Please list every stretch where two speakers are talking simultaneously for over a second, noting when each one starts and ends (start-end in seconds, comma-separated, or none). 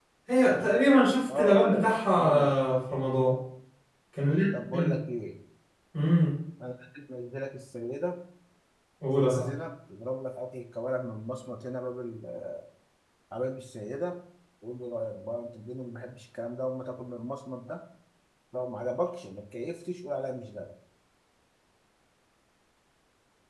1.4-2.5